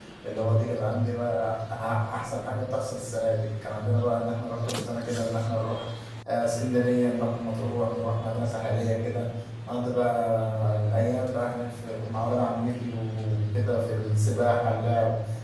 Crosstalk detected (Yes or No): No